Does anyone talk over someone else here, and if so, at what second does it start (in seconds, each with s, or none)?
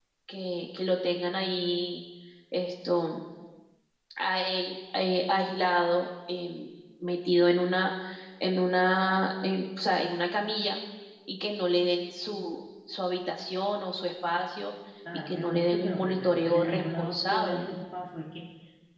15.3 s